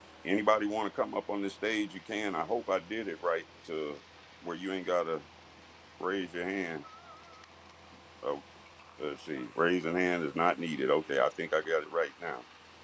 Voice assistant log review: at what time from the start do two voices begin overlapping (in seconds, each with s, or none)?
none